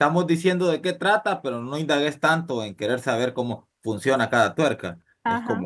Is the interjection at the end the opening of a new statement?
No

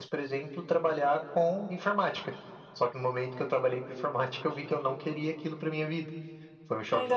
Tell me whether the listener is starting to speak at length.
Yes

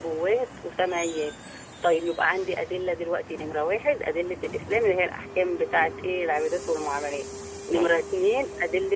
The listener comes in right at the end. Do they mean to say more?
No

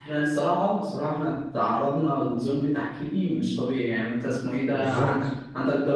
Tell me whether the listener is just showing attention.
Yes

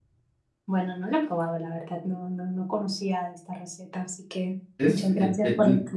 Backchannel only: No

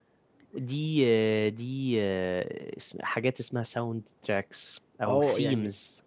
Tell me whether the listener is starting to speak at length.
Yes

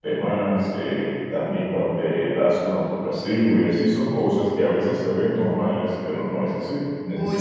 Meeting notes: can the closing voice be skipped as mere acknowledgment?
Yes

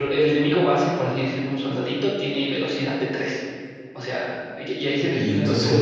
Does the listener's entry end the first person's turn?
Yes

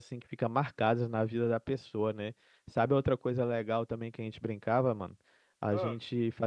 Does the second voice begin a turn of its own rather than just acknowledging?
No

